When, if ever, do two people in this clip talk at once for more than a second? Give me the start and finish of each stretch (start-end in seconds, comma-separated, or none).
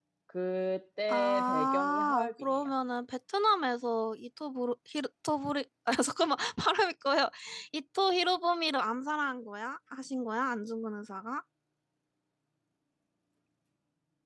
1.1-2.7